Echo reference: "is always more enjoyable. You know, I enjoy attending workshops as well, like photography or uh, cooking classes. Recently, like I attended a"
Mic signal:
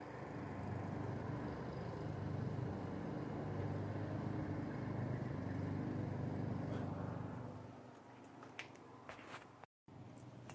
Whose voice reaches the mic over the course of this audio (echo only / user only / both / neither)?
neither